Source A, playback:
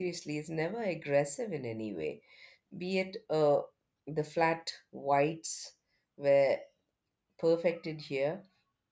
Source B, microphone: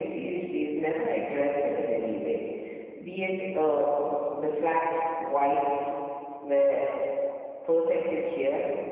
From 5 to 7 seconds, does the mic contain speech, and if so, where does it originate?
echo only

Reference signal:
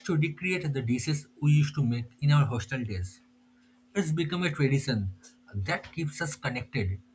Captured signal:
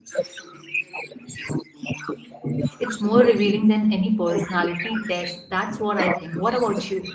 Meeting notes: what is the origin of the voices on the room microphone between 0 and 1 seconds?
echo only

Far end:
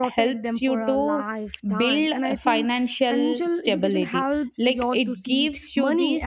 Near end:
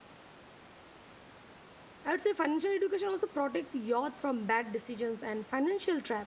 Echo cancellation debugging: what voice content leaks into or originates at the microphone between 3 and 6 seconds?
user only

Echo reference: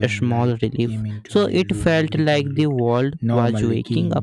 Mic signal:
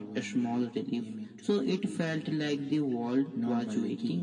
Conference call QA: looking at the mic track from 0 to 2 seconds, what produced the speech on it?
echo only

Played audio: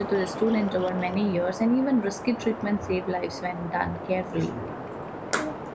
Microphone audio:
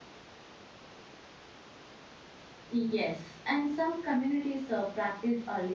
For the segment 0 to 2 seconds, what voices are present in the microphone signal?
neither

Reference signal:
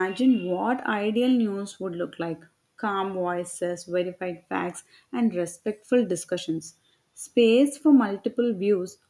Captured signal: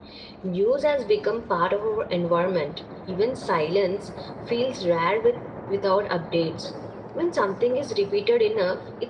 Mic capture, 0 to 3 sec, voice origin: user only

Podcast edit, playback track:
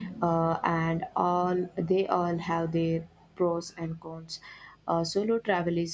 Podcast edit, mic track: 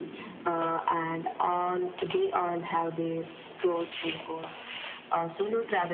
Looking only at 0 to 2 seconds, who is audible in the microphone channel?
echo only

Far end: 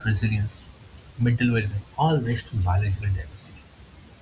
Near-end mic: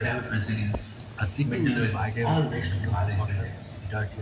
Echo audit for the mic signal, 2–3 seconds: both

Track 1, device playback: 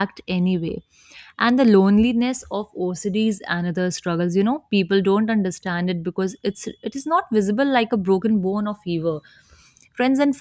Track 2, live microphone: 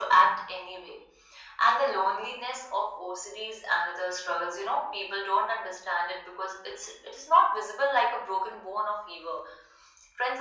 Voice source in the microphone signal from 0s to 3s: echo only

